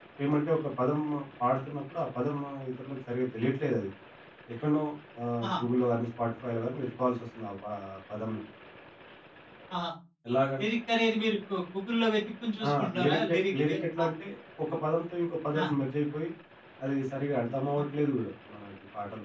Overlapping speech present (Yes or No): Yes